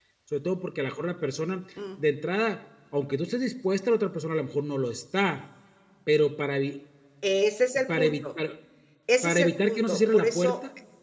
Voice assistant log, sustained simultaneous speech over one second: present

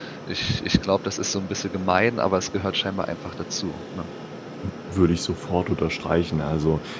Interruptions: none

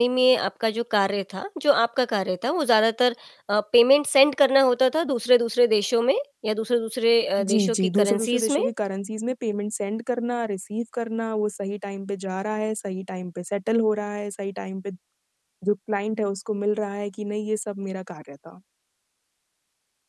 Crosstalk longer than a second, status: present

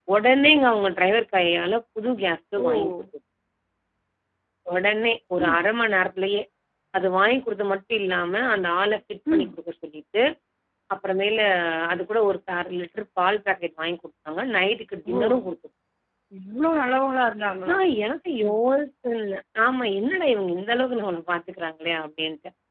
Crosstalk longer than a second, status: none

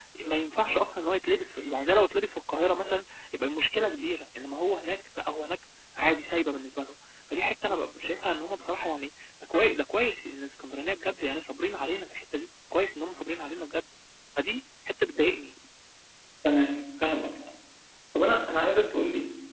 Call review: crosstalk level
none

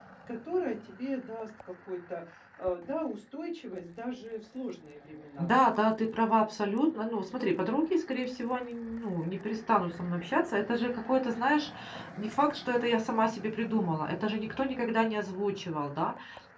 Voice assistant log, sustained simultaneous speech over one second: none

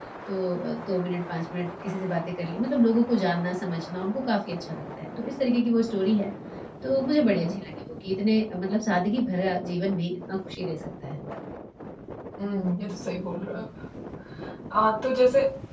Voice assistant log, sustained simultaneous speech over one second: none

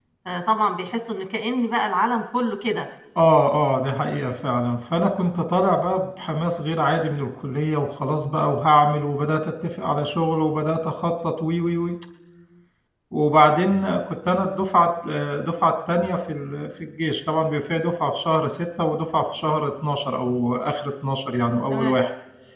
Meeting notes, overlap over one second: none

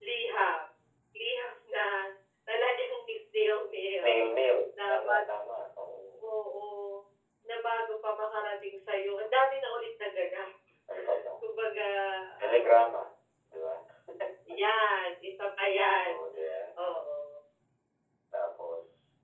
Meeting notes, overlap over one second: none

